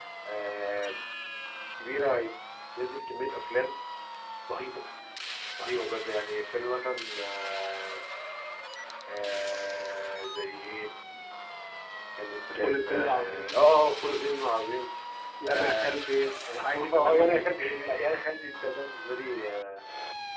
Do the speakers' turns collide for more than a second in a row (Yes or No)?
Yes